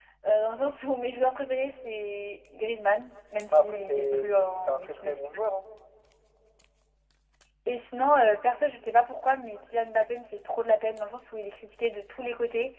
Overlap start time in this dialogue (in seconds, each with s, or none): 3.5 s